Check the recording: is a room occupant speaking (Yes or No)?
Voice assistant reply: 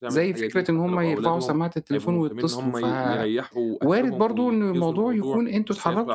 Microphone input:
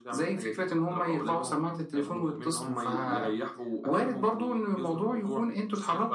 No